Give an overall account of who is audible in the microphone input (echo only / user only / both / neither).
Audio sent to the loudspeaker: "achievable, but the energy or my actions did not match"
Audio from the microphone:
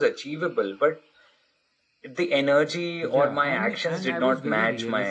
both